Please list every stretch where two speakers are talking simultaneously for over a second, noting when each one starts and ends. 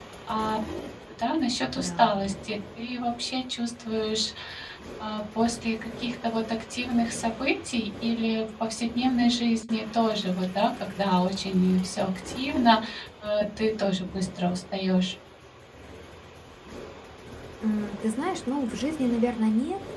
none

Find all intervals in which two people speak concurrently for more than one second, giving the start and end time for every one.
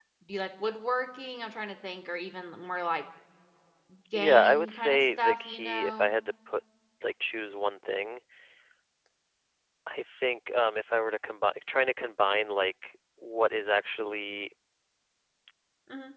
4.1-6.1

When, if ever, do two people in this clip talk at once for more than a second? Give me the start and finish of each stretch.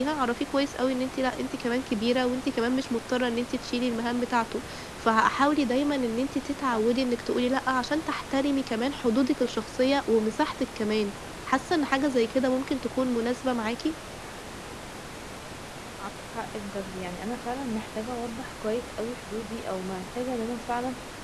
none

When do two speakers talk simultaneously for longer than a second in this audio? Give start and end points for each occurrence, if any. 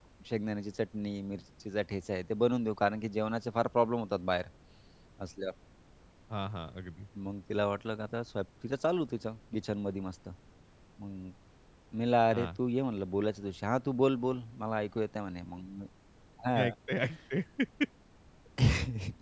none

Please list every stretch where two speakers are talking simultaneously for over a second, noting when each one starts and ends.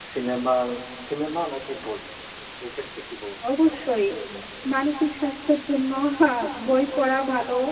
none

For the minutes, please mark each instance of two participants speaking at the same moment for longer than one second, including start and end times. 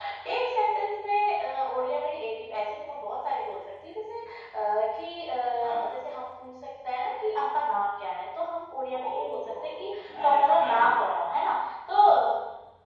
9.0-11.0

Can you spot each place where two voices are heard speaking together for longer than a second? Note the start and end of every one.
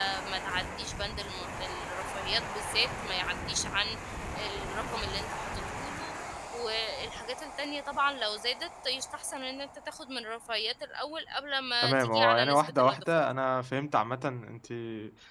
11.8-13.2

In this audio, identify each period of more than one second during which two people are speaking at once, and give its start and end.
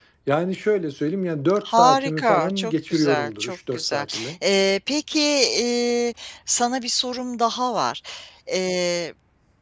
1.6-4.1

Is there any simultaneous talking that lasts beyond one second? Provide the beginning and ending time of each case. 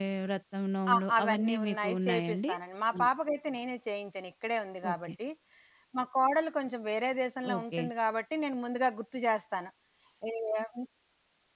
0.9-2.5

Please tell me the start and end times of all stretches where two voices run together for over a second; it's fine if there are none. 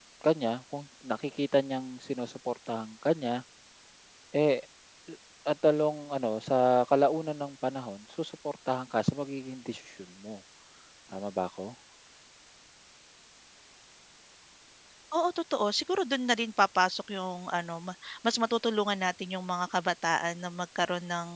none

